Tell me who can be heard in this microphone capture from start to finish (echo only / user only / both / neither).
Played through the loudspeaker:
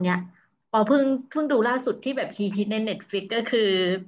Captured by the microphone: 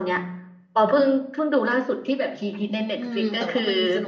both